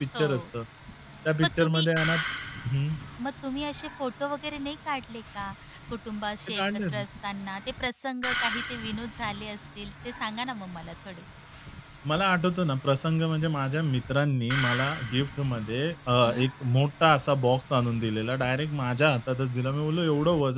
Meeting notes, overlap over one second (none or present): none